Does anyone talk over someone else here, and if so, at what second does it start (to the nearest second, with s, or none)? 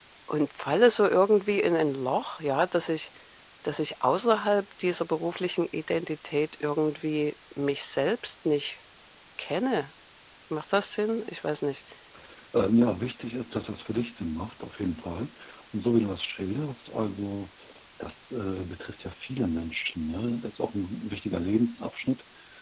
none